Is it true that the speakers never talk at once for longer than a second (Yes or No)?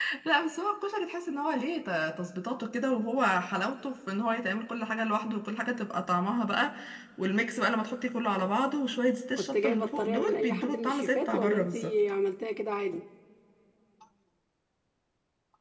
No